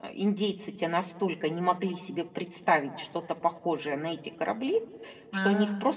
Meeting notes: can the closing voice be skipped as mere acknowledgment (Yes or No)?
Yes